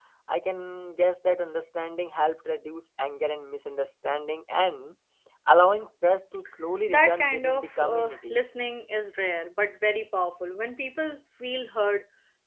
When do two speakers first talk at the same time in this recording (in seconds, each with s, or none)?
6.9 s